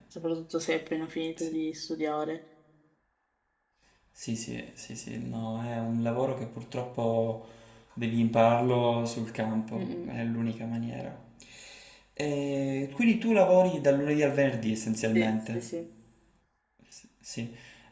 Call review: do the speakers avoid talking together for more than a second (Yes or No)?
Yes